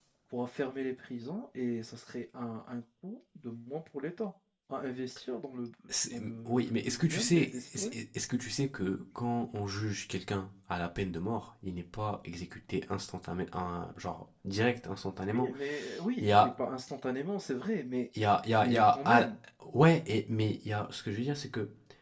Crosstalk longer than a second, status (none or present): present